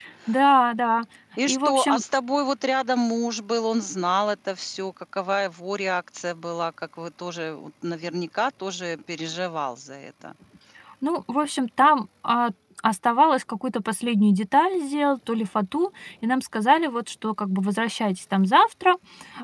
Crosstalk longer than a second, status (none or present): none